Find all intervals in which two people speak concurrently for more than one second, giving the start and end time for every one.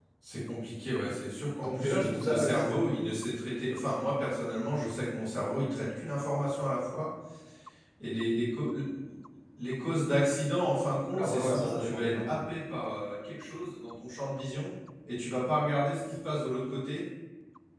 1.6-2.8, 11.1-12.3

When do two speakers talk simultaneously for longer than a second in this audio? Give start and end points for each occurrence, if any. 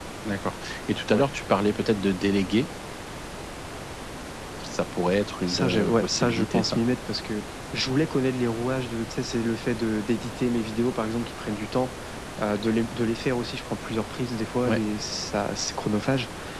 5.5-6.8

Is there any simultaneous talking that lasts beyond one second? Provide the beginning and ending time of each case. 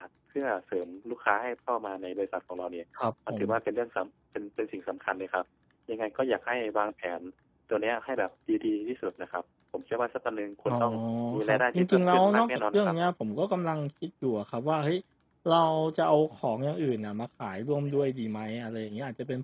11.4-12.9

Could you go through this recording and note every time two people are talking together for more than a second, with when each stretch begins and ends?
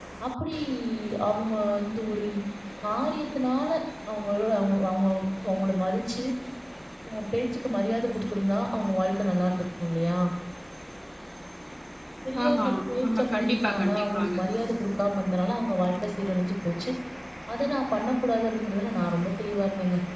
13.1-14.3

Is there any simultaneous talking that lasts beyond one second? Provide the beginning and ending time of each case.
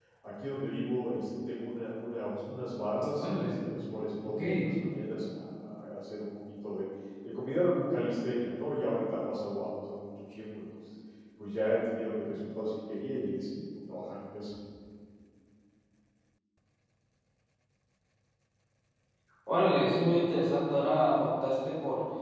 none

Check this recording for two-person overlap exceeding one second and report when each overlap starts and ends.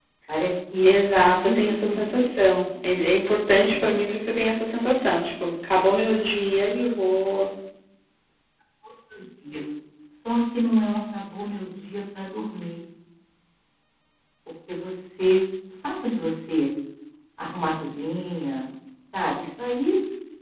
0.8-2.3

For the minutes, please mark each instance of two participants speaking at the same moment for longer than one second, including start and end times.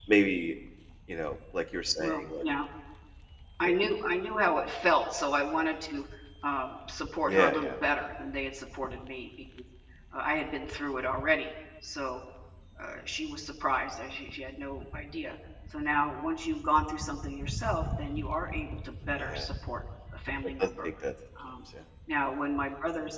none

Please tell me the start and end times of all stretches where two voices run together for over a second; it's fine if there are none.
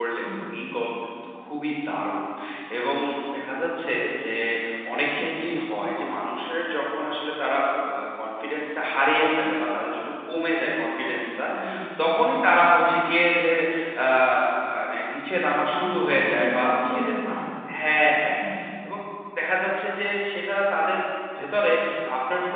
15.8-17.3

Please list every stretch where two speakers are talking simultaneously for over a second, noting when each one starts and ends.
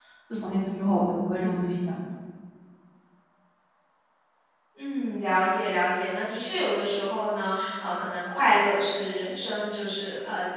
none

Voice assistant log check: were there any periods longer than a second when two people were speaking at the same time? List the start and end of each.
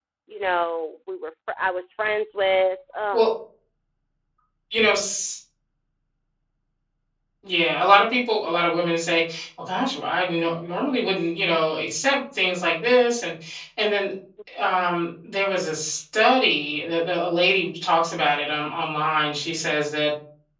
none

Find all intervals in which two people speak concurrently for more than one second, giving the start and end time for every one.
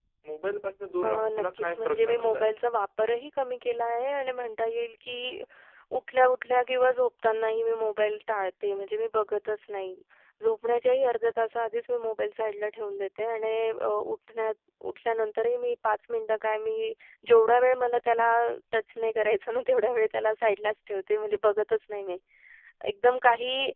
1.1-2.5

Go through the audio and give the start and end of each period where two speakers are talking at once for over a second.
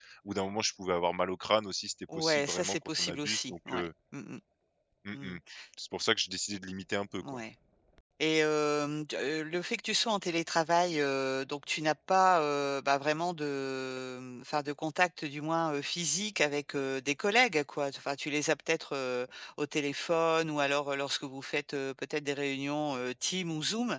2.1-3.9

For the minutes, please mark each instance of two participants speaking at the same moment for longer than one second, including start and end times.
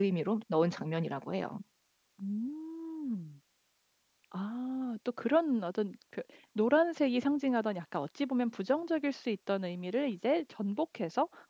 none

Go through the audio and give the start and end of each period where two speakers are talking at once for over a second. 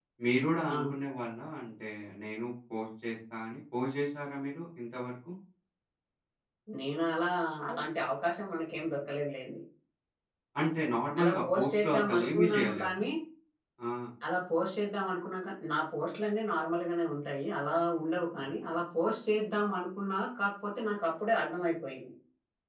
11.2-13.0

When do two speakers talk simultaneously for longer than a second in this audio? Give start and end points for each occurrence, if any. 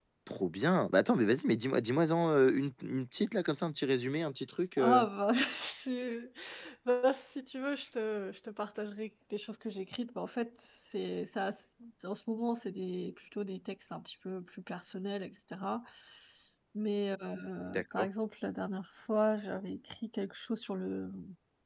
none

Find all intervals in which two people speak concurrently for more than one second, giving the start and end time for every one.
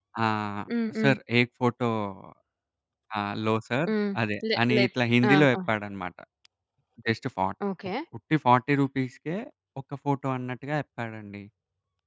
none

